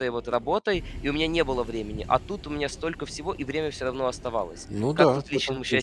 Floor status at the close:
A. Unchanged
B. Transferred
B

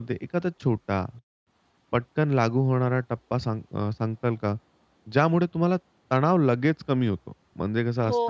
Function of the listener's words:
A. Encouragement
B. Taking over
B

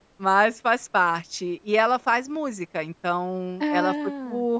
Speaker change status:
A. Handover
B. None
B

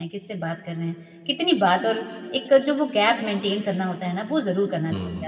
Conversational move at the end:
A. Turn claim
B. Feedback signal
A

